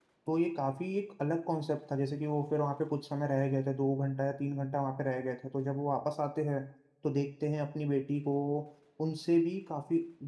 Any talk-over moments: No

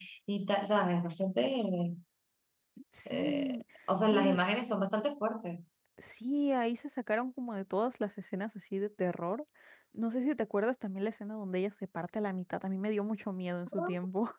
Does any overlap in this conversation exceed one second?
No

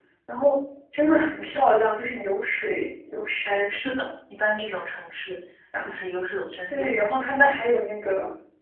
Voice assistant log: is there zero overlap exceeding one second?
Yes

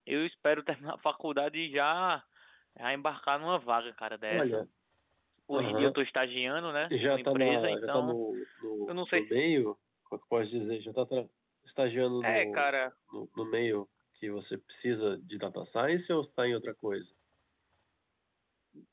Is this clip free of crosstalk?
No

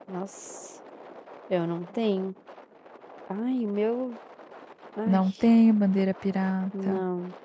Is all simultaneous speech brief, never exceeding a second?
Yes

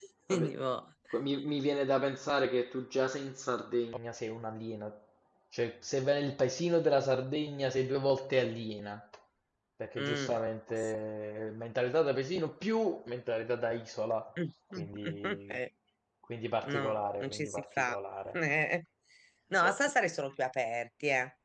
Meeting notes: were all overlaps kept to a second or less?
No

